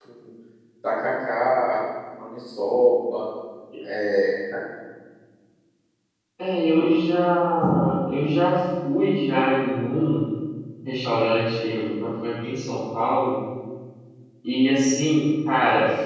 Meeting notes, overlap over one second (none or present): none